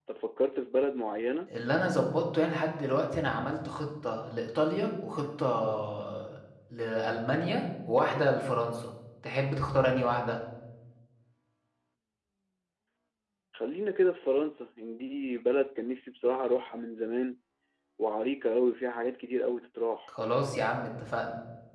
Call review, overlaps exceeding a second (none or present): none